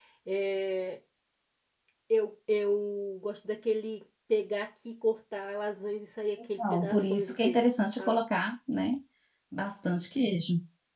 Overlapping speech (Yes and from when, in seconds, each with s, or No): Yes, from 6.6 s